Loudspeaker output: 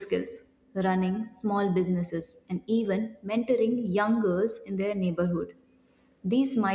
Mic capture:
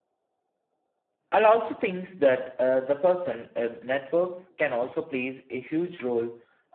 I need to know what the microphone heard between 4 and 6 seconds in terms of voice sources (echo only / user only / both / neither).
user only